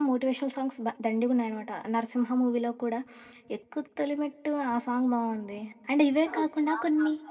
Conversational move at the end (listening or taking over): taking over